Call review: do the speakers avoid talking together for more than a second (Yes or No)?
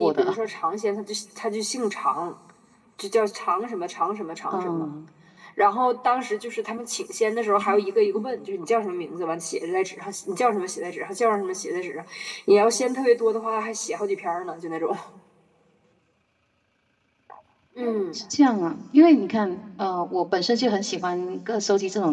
Yes